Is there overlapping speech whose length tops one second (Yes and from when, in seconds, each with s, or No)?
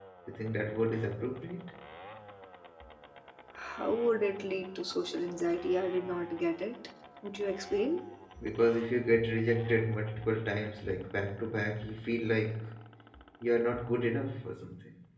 No